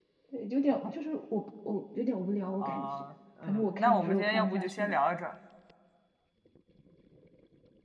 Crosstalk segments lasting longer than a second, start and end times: 3.4-5.0

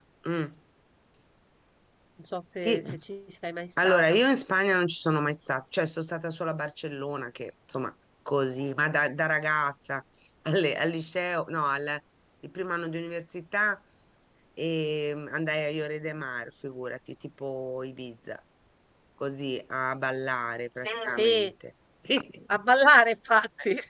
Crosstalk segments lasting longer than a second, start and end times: none

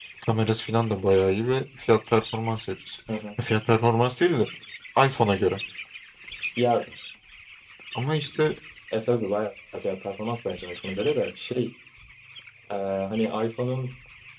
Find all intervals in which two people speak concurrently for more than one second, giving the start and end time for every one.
none

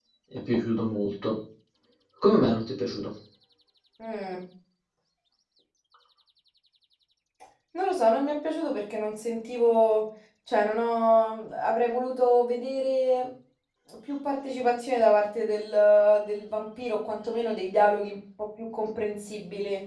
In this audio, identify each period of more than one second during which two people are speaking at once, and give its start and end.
none

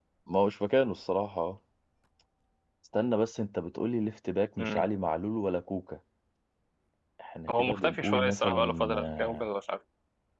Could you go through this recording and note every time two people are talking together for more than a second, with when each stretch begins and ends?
7.5-9.5

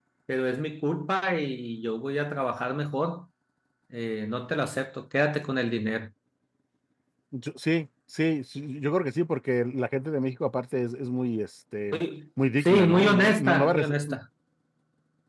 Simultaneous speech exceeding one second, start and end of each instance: 12.6-13.9

